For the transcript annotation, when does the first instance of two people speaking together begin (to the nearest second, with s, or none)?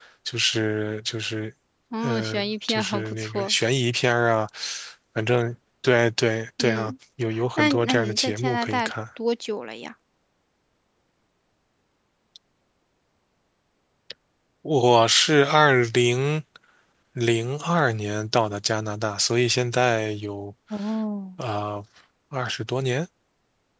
2 s